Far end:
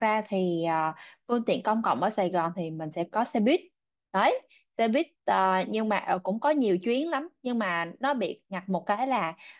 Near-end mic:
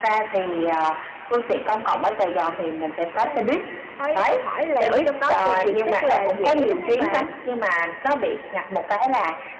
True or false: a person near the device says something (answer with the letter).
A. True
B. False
A